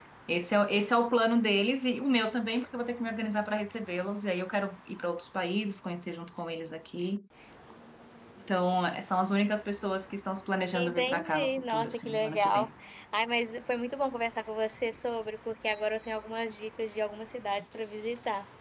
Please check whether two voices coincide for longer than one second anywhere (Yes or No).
Yes